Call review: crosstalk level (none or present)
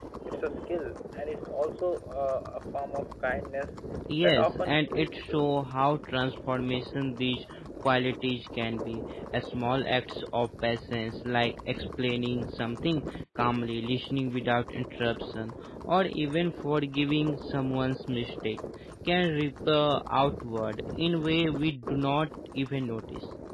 present